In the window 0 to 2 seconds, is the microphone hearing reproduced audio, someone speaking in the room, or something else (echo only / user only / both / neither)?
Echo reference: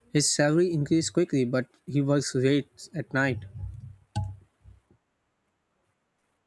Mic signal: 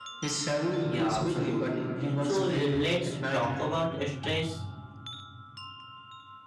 both